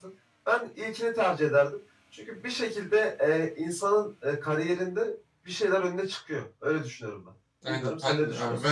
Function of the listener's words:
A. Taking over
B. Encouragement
A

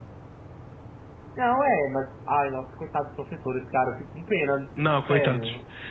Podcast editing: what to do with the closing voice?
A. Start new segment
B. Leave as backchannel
A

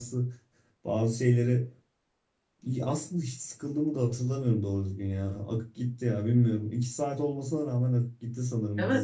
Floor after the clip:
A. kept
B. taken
B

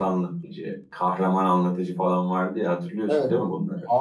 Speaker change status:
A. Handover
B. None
A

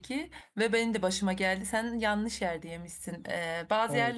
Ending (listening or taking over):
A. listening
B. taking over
A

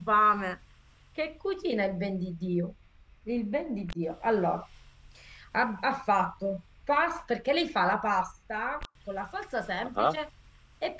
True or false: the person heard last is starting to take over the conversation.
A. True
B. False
B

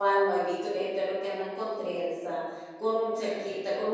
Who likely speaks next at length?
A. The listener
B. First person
B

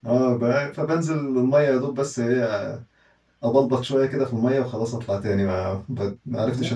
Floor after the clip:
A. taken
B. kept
A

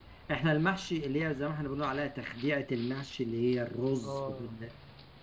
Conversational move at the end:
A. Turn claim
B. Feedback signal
B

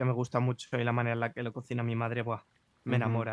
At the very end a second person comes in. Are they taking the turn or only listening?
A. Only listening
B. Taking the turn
B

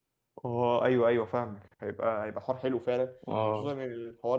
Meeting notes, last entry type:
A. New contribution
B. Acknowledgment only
B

